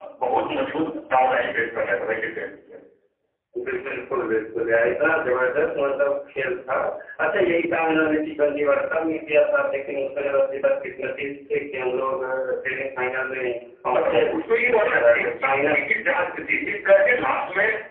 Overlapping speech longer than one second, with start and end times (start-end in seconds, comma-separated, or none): 13.9-15.8